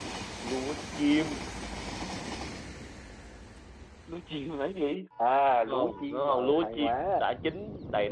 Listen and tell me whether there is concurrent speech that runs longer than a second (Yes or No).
Yes